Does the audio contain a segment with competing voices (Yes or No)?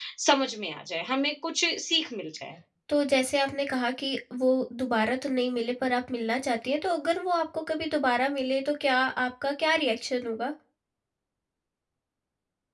No